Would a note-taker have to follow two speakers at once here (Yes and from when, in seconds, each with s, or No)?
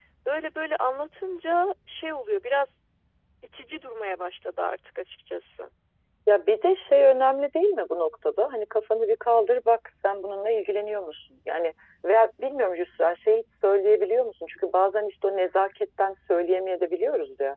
No